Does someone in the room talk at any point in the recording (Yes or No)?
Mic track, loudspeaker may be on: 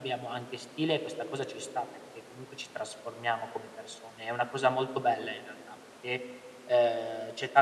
No